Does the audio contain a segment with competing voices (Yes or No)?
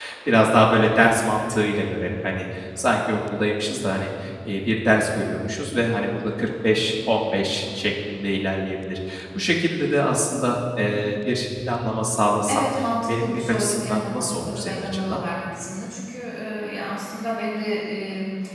Yes